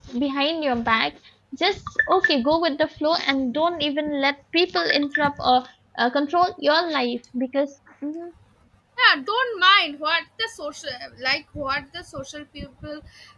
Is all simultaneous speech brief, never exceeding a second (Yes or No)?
Yes